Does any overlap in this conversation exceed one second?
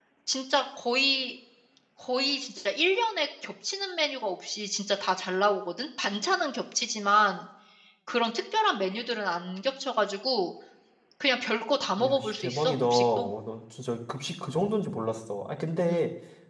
Yes, from 12.0 s

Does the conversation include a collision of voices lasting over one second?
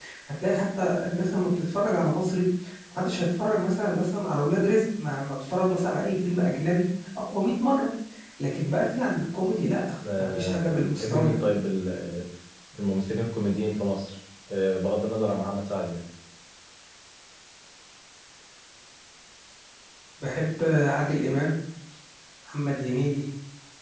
Yes, from 10.0 s

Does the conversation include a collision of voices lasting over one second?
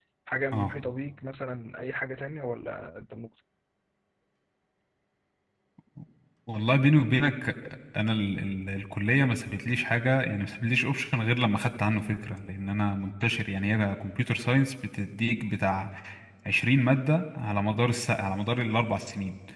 No

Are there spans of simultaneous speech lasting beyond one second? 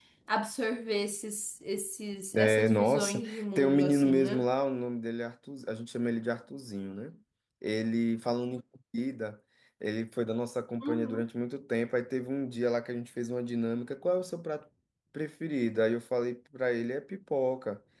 Yes, from 2.4 s

